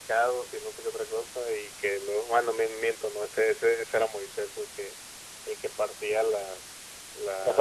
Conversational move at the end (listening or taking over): listening